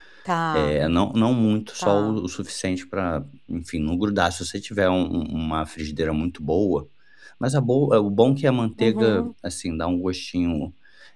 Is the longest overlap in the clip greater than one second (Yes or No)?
No